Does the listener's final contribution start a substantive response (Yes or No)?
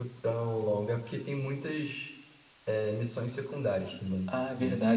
Yes